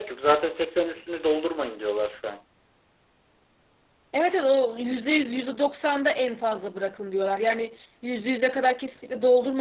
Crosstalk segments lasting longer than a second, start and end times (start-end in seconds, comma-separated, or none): none